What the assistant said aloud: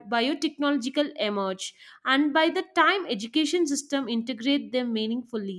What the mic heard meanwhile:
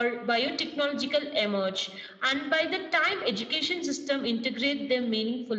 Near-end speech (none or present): none